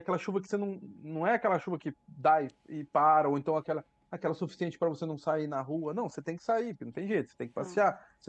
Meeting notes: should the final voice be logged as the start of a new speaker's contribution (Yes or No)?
No